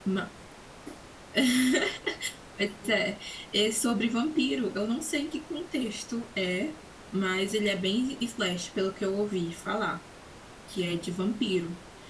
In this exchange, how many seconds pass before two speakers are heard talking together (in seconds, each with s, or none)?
none